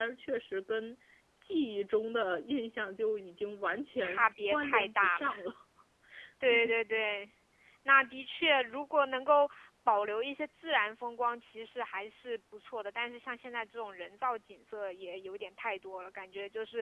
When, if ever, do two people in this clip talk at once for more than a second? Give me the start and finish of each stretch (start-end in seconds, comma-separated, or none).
4.0-5.3